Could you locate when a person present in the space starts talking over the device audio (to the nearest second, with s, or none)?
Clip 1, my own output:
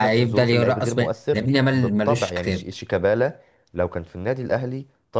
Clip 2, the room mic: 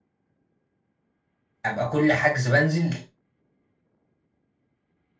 2 s